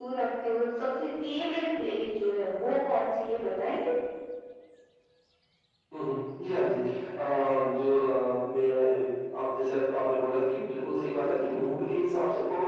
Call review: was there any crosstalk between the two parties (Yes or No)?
No